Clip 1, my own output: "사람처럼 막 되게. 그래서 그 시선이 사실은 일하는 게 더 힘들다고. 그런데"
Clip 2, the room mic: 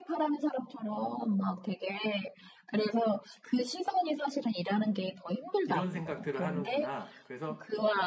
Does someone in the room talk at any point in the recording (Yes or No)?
Yes